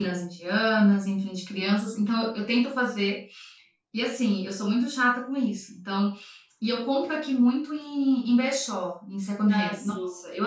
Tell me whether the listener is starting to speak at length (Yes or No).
No